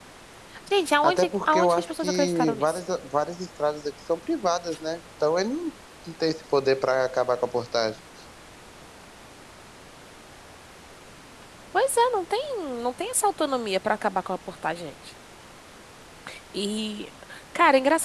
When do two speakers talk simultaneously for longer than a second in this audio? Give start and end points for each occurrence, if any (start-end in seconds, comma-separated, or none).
1.0-2.8